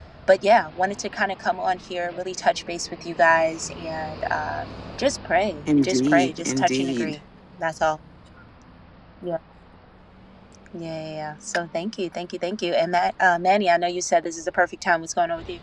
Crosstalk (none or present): present